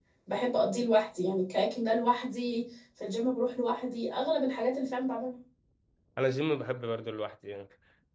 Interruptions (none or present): none